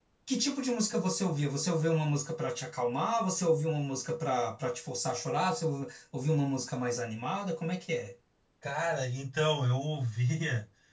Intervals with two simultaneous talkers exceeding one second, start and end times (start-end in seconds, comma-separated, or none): none